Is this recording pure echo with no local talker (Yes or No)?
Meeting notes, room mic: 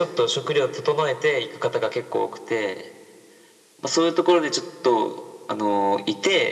Yes